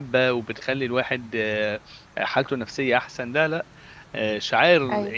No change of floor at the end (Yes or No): Yes